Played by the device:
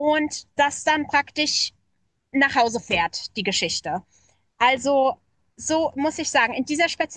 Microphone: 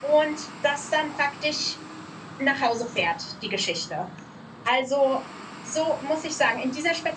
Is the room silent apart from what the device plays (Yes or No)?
Yes